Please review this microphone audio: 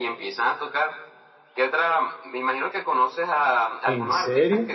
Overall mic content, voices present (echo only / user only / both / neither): both